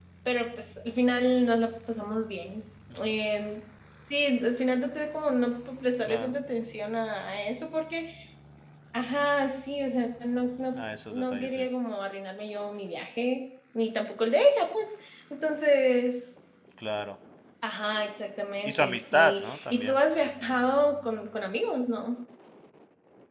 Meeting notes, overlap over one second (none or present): present